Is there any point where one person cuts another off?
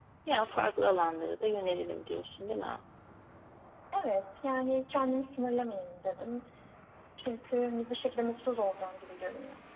No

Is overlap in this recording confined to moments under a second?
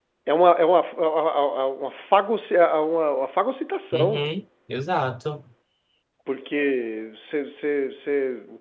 Yes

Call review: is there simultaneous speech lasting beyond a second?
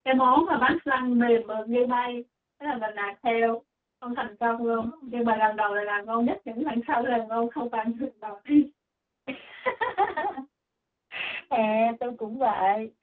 No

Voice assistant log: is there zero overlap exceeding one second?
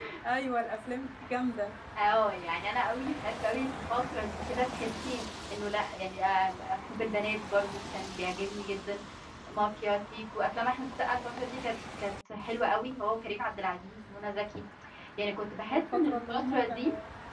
No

